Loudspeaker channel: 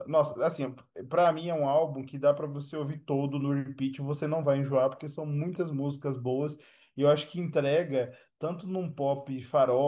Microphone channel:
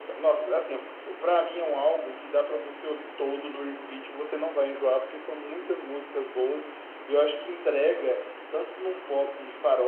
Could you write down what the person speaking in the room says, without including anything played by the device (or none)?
none